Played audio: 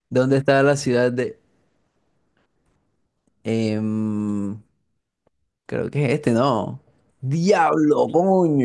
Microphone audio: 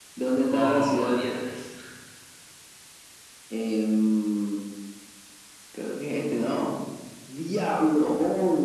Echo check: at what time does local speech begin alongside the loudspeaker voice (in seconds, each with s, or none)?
0.5 s